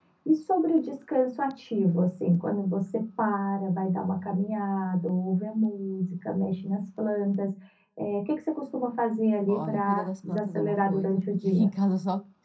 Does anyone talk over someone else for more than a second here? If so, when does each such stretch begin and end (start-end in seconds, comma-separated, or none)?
9.5-11.7